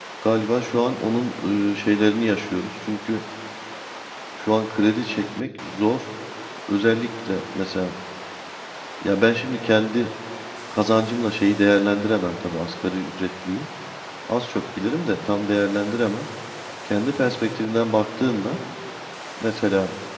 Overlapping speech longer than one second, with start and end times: none

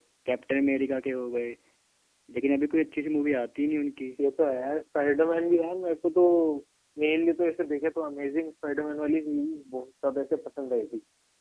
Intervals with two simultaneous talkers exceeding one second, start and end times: none

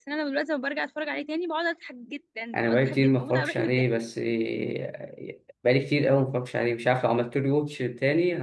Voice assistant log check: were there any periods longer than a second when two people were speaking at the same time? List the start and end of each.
2.5-3.8

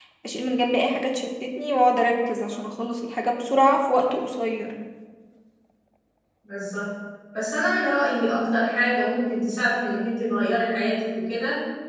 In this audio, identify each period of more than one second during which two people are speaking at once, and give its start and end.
none

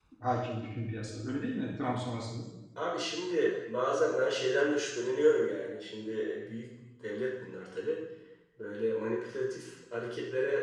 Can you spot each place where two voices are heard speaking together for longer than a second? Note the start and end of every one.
none

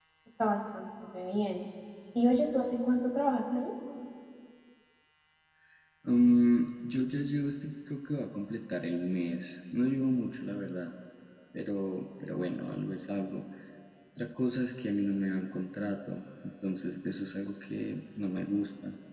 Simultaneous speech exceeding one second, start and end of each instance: none

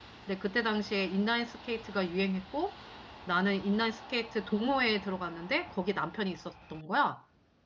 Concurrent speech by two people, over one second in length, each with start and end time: none

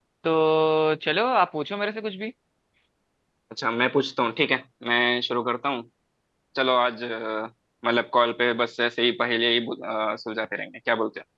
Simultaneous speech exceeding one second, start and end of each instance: none

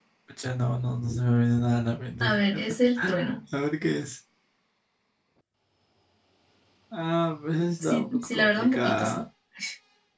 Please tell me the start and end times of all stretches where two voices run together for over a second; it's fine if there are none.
7.8-9.2

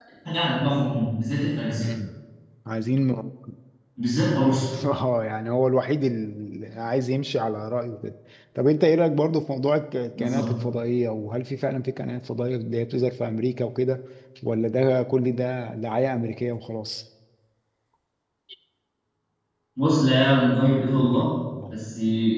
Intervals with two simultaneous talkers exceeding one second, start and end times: none

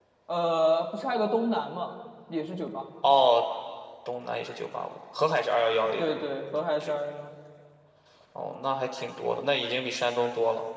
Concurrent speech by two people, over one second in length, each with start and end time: none

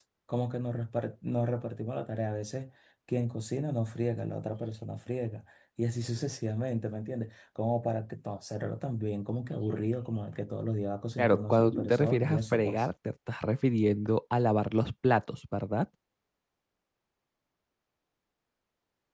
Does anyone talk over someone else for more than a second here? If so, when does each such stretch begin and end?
11.2-12.9

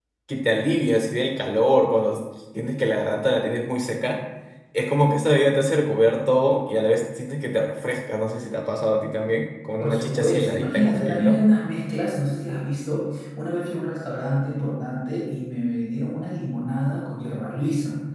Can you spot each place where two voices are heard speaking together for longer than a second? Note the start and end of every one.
9.8-11.4

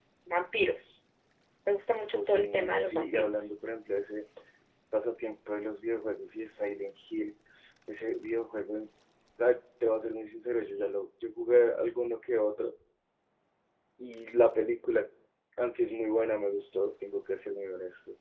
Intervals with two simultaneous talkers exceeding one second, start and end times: 2.1-3.5

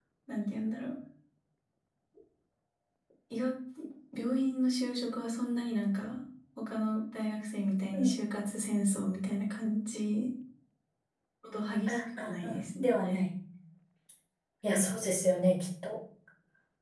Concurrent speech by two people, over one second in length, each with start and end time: 11.9-13.2

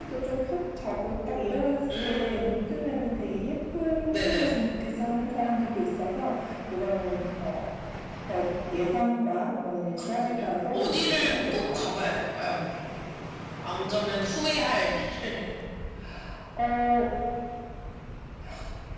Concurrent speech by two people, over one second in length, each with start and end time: 10.0-12.1

